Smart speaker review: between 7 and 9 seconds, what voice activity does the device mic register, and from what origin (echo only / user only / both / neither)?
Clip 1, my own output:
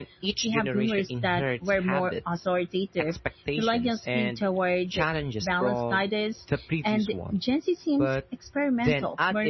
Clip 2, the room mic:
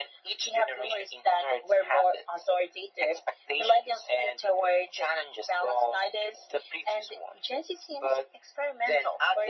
echo only